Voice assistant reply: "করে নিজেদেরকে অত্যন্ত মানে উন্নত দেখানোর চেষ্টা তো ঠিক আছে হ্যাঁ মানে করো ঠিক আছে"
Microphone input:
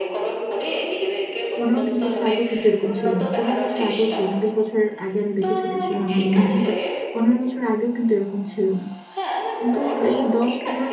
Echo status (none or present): present